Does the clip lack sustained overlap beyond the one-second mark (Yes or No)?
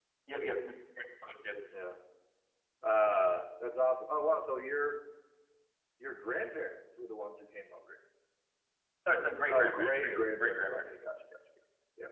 No